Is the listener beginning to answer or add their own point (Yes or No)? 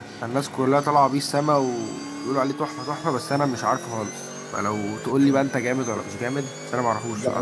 Yes